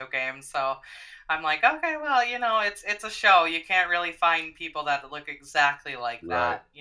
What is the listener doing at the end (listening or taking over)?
taking over